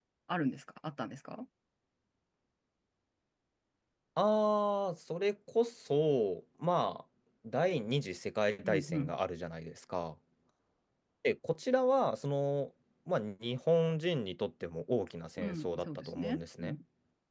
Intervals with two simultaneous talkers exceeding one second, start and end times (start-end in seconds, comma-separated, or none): 15.4-16.8